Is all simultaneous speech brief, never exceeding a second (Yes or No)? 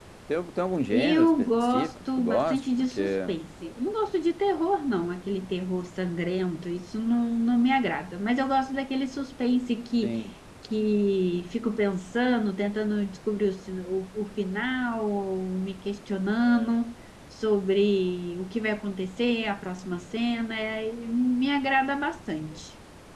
No